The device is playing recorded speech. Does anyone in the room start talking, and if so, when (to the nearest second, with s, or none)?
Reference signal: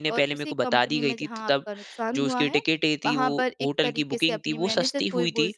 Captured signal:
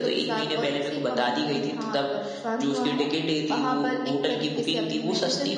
none